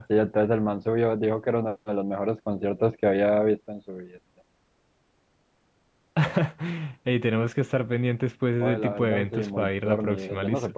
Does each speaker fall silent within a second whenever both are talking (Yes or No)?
No